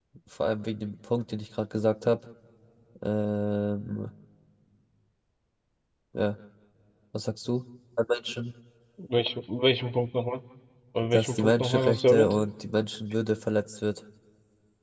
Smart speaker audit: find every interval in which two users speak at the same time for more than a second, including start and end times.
11.0-12.3

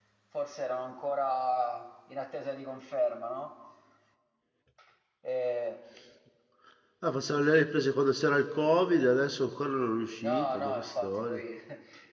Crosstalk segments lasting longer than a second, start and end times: 10.2-11.4

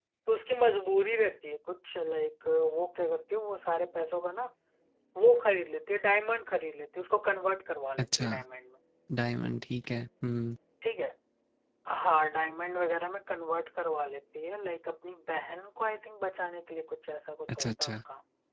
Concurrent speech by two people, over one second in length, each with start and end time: none

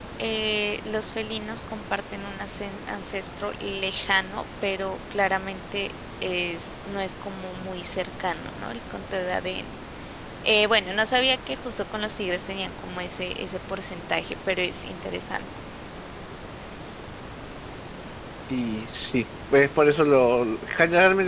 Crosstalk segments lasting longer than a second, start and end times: none

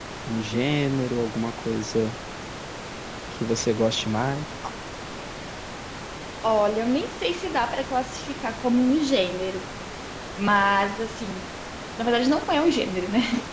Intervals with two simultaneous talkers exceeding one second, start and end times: none

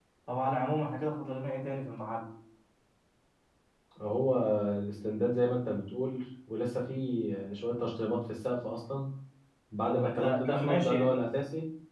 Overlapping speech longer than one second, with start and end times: 9.9-11.3

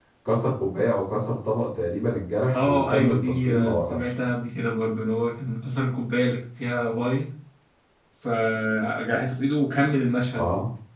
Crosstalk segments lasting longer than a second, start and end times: 2.5-4.0

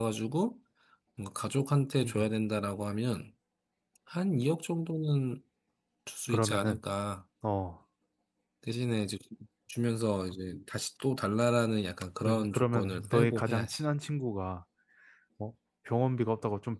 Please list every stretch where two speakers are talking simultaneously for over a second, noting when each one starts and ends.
12.2-13.8

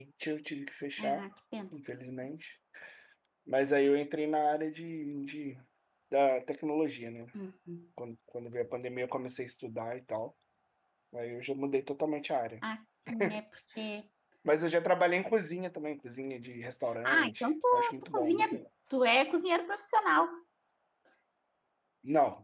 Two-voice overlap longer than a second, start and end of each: 17.1-18.5

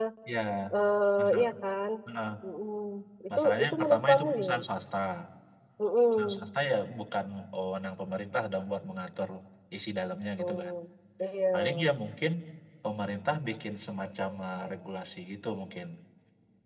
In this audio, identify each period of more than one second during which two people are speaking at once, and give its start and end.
3.4-4.6

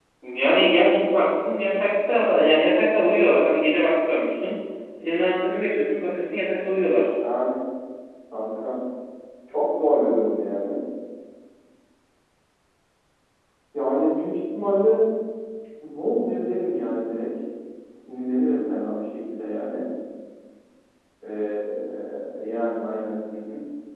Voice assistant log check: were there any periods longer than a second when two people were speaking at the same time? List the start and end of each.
none

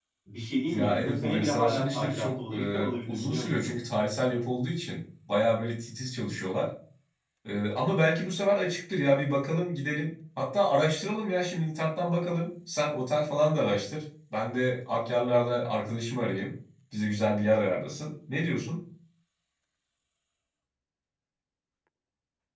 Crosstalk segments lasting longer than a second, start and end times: 0.7-3.8

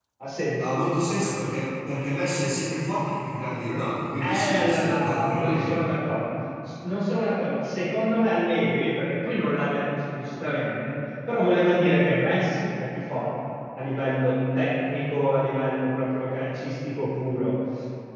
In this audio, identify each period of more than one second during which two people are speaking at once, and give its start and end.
4.2-5.8

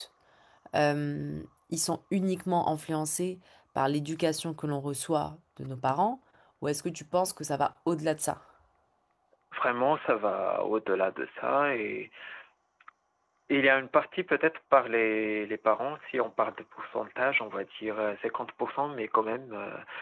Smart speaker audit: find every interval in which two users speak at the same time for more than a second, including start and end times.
none

